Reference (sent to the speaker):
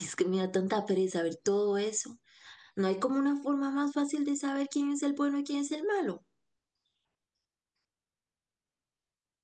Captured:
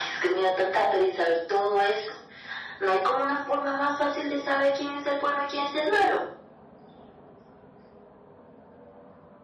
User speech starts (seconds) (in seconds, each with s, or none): none